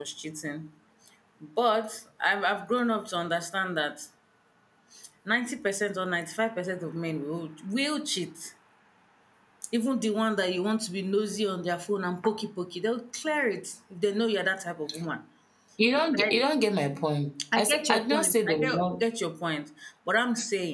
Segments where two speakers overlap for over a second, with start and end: 17.5-18.8

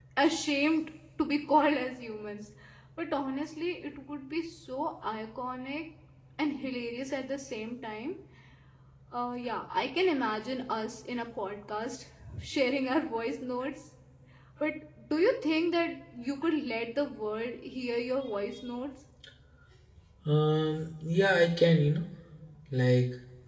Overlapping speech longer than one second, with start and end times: none

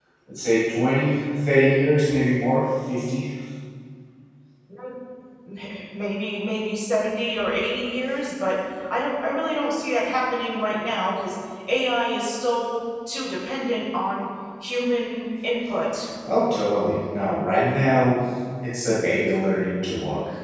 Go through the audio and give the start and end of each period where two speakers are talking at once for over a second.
none

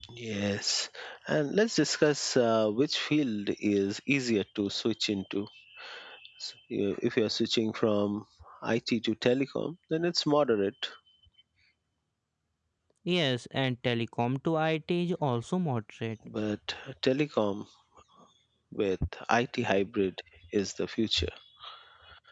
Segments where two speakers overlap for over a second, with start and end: none

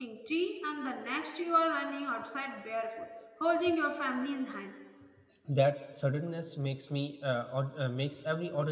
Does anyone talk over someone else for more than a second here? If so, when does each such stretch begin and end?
none

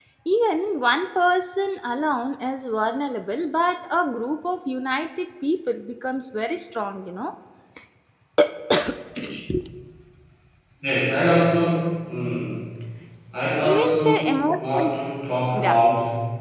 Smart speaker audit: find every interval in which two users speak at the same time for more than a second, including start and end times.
13.4-14.9

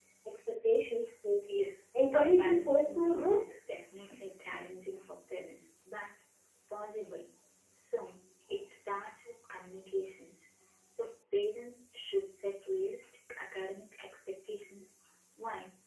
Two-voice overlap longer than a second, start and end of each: 2.1-3.4

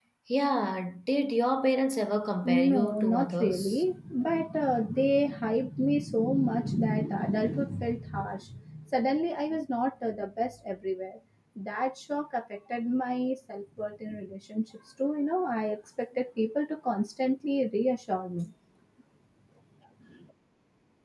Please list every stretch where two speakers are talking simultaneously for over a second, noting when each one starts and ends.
2.4-3.8

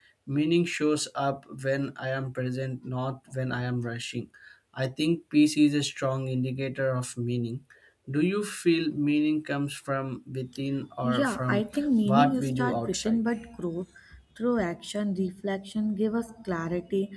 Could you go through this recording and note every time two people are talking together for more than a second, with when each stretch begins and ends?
11.0-13.2

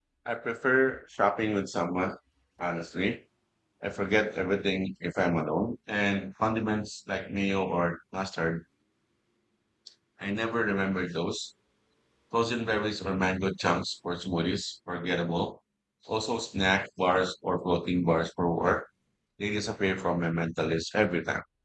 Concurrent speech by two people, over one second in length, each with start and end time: none

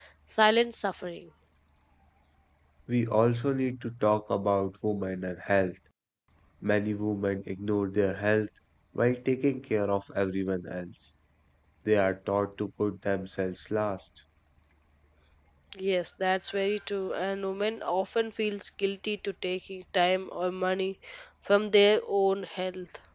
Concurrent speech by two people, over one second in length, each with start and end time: none

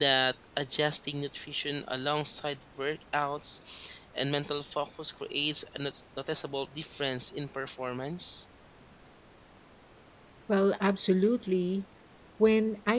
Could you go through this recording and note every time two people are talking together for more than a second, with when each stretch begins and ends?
none

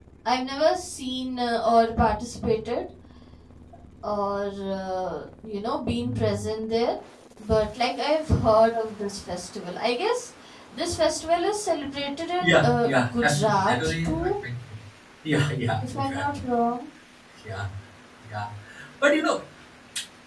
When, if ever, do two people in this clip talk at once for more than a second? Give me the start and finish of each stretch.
12.4-14.3

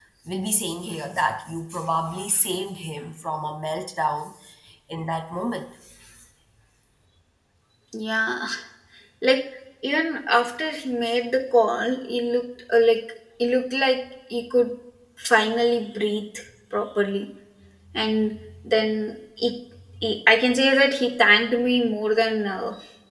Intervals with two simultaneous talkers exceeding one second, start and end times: none

